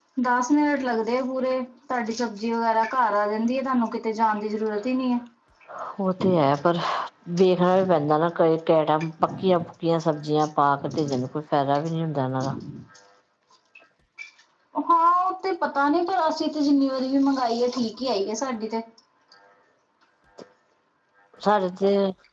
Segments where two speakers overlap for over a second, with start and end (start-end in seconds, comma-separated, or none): none